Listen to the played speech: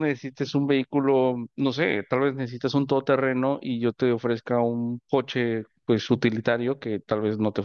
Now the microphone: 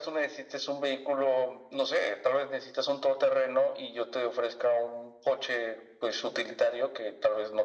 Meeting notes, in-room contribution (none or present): none